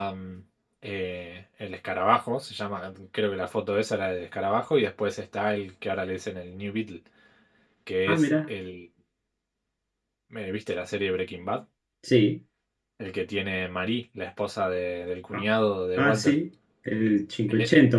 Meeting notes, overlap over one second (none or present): none